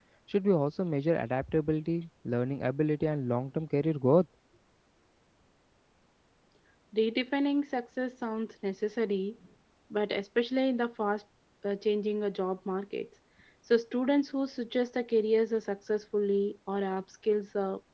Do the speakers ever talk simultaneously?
No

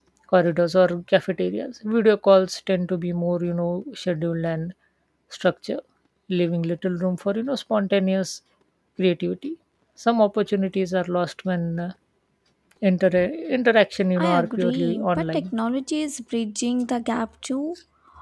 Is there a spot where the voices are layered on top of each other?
Yes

